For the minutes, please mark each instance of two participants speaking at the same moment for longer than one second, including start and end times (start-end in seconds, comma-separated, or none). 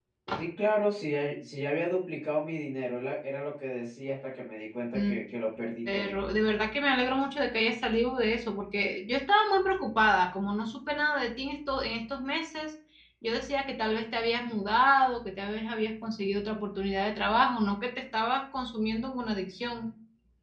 none